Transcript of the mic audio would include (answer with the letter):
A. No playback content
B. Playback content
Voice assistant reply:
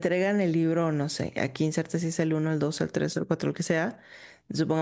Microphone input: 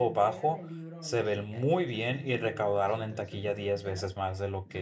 B